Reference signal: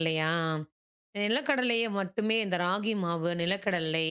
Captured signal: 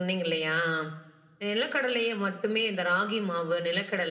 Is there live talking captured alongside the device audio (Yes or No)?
No